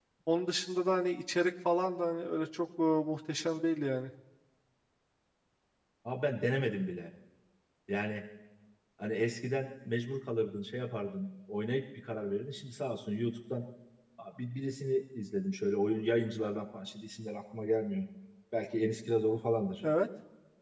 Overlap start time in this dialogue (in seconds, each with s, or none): none